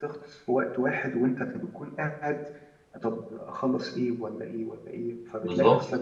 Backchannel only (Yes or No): Yes